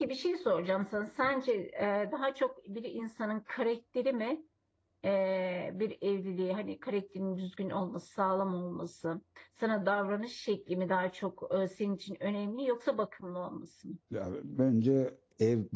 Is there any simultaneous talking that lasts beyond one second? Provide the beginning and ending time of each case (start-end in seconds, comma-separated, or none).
none